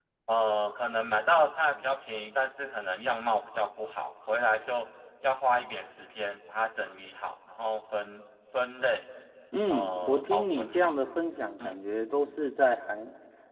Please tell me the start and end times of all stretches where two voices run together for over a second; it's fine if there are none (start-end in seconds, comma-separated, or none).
9.7-10.9